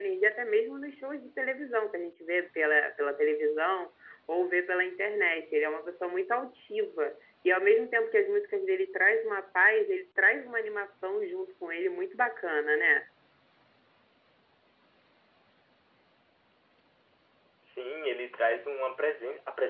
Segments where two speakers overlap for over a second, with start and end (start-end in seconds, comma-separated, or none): none